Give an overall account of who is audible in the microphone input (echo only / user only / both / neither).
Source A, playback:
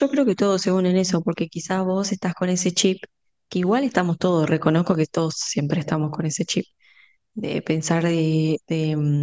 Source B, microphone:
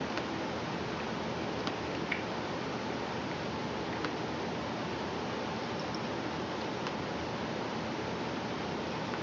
neither